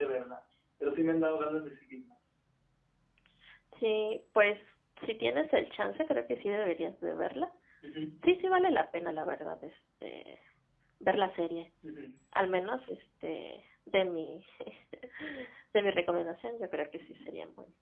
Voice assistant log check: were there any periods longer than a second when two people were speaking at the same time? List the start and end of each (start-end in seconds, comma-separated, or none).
none